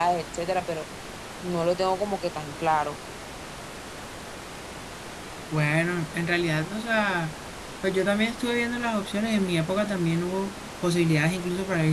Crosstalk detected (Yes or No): No